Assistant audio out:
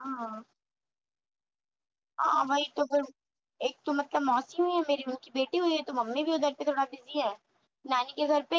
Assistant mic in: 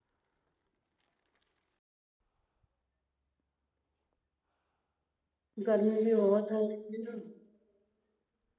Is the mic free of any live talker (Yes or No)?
No